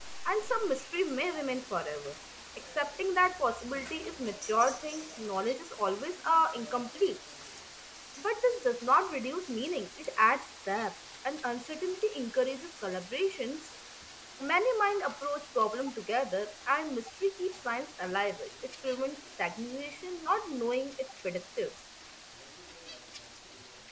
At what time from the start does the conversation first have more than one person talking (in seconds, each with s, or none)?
none